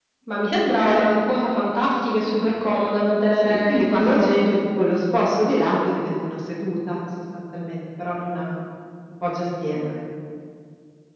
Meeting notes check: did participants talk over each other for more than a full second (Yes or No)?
Yes